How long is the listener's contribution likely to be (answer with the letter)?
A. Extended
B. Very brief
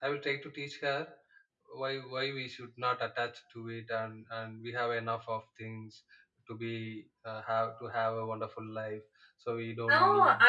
A